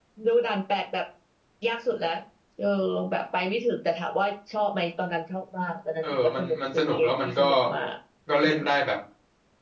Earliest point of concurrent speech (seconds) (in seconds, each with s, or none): 6.0 s